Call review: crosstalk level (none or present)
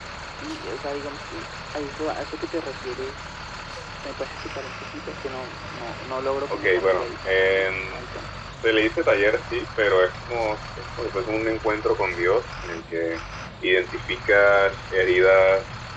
present